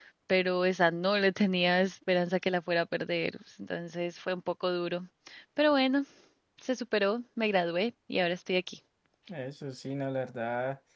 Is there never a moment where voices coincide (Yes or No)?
Yes